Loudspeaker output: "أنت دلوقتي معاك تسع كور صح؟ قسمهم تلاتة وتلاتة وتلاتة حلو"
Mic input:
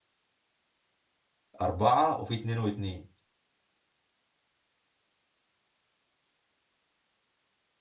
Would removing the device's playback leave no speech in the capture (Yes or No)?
No